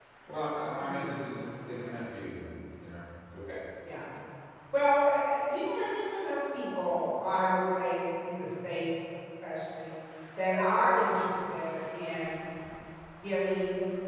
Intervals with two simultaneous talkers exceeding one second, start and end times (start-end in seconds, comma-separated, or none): none